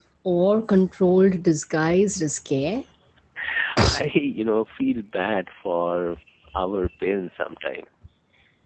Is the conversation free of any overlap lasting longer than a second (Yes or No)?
Yes